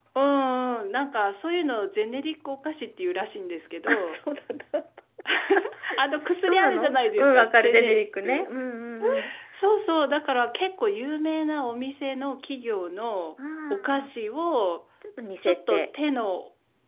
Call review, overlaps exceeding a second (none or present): present